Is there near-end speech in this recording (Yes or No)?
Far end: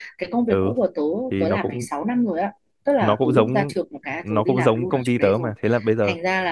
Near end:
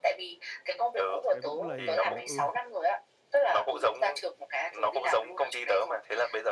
Yes